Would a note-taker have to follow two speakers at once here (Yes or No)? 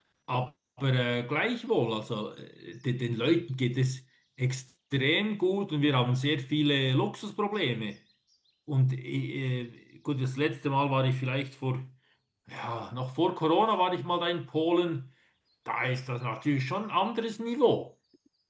No